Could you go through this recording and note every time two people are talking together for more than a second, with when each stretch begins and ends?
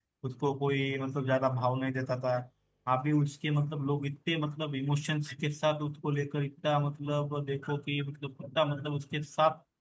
none

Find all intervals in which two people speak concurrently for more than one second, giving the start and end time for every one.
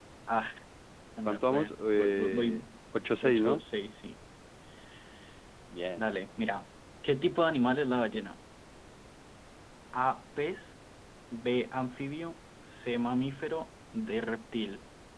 1.2-2.6

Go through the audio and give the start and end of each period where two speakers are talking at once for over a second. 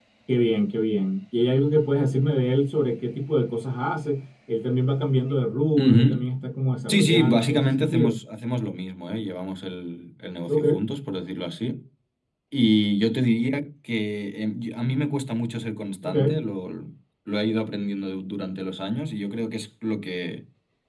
6.9-8.2

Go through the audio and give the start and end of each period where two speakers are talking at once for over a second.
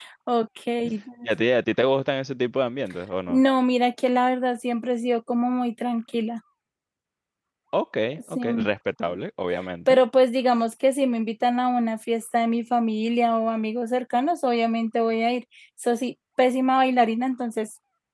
none

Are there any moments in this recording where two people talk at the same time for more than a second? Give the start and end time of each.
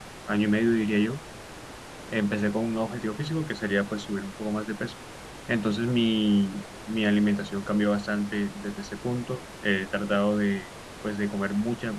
none

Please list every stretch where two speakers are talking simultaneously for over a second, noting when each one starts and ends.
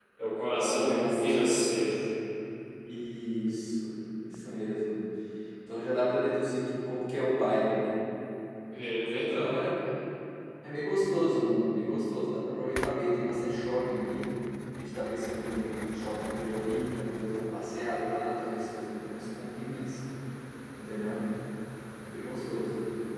0.6-1.9

